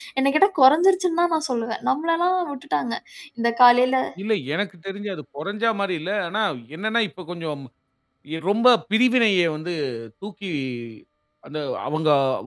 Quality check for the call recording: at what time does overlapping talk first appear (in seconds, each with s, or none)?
none